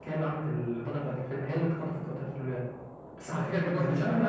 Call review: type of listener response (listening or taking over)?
taking over